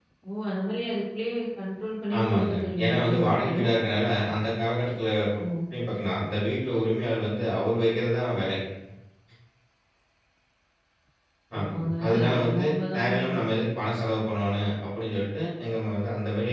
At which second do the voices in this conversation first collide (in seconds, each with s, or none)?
2.2 s